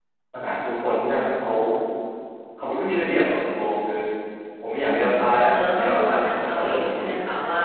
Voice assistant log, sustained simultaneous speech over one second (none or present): present